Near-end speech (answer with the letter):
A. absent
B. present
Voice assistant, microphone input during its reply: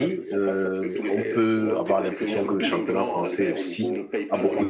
B